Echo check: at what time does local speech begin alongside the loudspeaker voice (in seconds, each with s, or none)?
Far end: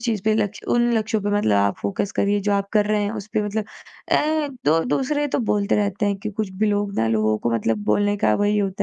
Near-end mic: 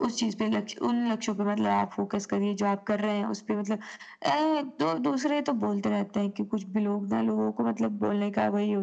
none